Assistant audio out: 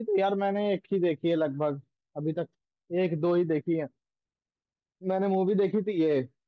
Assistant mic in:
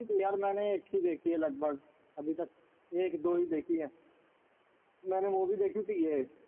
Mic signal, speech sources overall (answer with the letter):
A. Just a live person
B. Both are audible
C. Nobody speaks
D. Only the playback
D